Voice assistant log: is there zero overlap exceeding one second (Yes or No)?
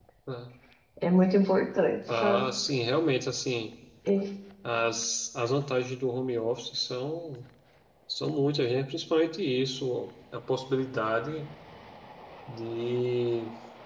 Yes